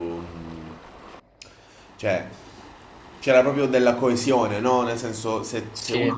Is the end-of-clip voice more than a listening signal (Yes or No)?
No